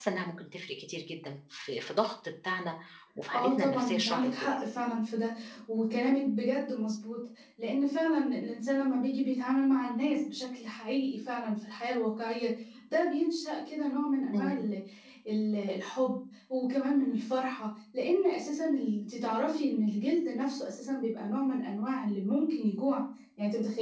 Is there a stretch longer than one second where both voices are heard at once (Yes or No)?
Yes